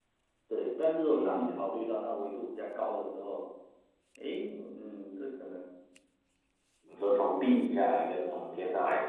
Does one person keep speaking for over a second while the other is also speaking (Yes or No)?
No